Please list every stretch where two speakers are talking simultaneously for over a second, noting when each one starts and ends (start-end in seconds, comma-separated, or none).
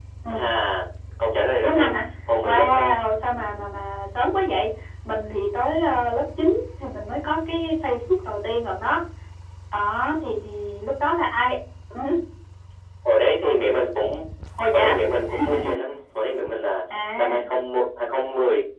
none